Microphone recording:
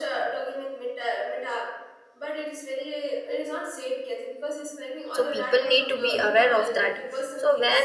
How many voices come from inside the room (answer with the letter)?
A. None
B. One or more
B